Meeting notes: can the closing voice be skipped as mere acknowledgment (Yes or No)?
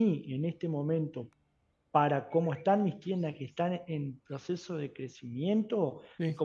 Yes